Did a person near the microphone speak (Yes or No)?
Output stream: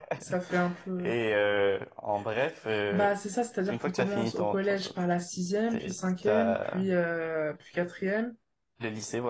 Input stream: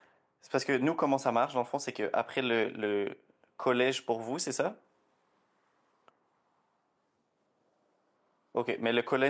Yes